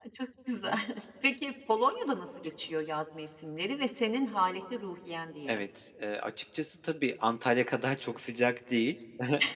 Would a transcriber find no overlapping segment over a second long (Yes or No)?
Yes